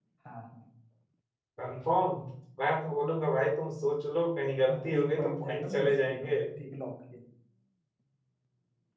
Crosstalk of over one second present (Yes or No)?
Yes